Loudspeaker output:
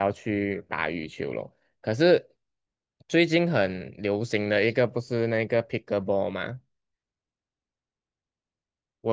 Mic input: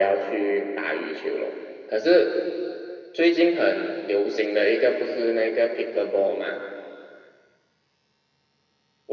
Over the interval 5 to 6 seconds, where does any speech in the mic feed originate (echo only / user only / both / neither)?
echo only